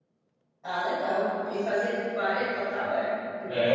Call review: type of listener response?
taking over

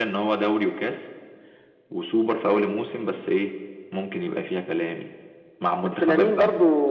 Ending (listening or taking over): taking over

